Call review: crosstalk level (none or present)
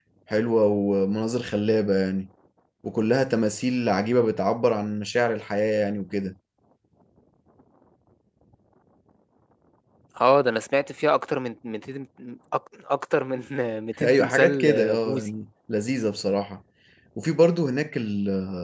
present